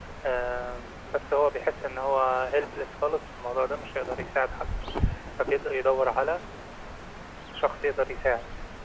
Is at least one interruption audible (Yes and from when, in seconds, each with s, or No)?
No